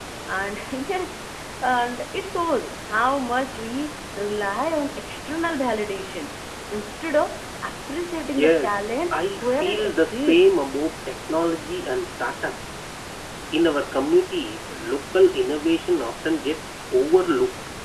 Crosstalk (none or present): present